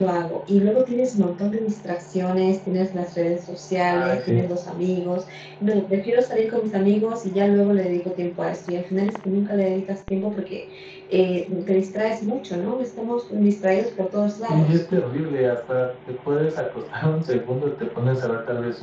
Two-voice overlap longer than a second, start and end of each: none

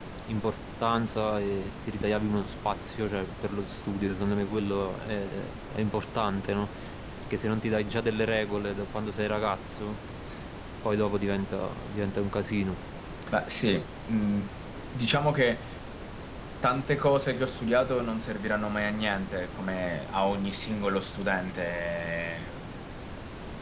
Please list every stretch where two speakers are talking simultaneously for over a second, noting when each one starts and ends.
none

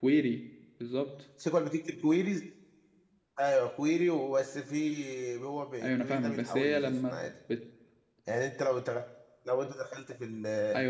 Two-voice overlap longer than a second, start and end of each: 5.8-7.2

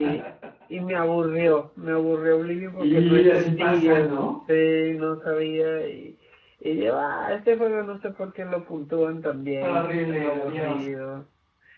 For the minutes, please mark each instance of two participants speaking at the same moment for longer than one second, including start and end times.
2.8-4.2, 9.6-10.8

